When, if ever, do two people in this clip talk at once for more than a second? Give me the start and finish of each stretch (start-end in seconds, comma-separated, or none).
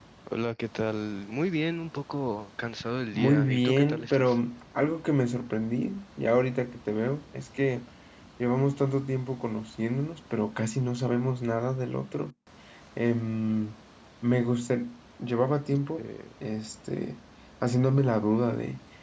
3.1-4.4